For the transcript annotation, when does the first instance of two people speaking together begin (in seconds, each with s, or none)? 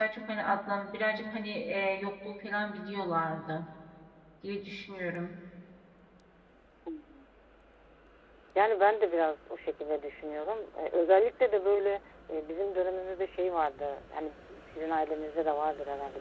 none